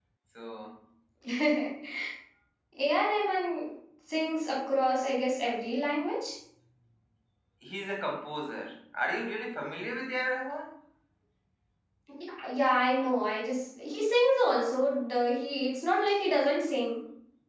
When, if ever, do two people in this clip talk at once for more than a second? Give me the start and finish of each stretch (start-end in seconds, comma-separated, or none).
none